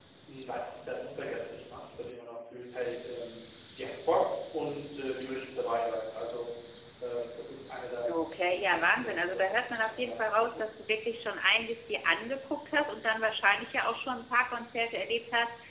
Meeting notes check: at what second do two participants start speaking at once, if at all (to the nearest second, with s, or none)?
8 s